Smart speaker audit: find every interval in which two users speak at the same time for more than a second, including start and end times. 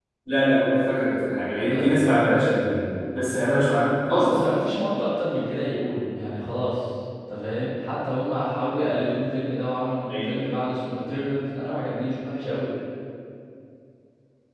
none

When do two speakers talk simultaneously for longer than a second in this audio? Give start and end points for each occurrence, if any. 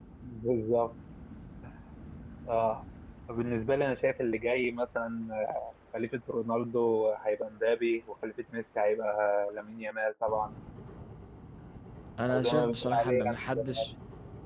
12.3-13.8

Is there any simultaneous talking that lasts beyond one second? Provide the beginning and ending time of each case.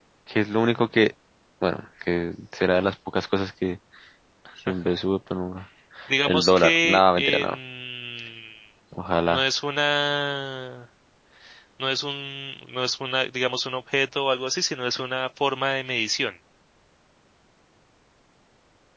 6.3-7.5

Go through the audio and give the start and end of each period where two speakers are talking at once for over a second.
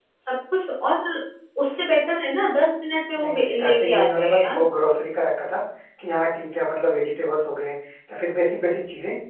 3.2-4.7

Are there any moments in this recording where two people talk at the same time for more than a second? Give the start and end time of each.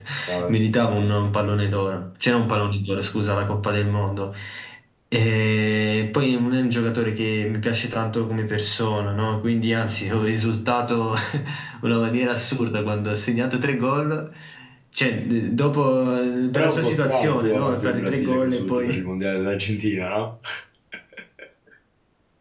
16.5-19.0

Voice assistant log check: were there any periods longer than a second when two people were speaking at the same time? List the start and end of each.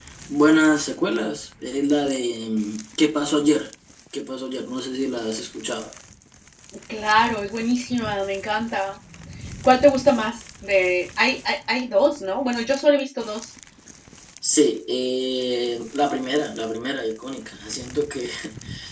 none

